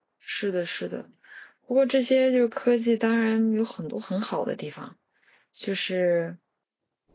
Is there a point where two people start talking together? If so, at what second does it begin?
none

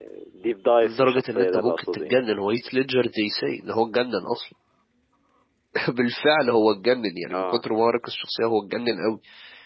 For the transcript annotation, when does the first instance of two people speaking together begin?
1 s

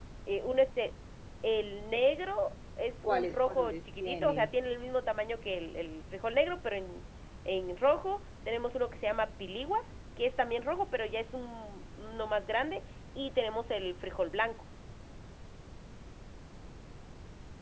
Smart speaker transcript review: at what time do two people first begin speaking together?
3 s

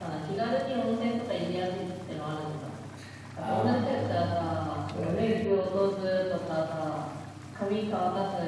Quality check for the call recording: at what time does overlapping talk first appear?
3 s

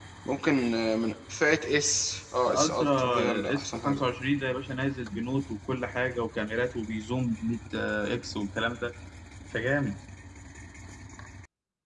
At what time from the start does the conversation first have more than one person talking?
2 s

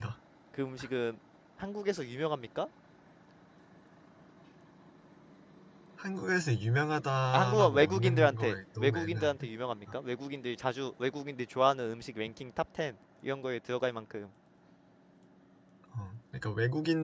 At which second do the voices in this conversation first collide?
7 s

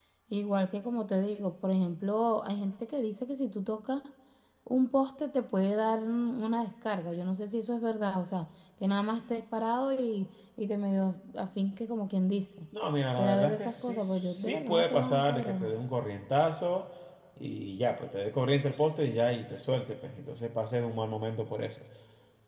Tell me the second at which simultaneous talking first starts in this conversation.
13 s

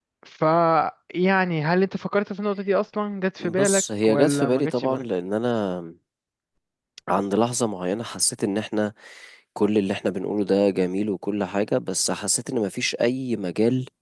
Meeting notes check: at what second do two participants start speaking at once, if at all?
3 s

